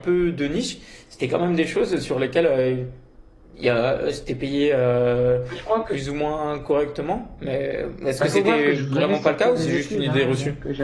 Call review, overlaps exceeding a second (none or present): present